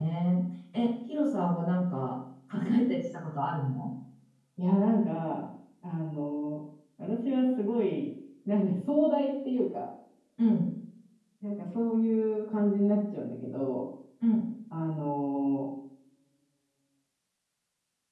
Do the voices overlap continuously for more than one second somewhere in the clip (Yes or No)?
No